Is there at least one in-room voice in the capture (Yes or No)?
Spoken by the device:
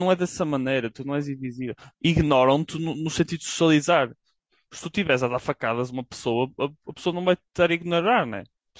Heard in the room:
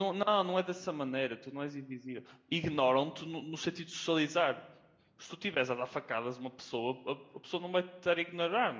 No